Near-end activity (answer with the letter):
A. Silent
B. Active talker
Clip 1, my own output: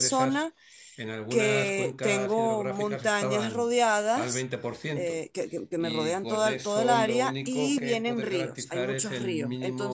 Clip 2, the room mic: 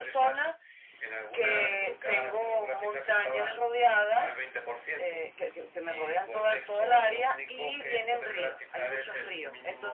A